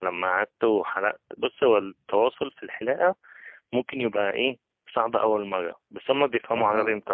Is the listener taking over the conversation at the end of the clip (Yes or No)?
No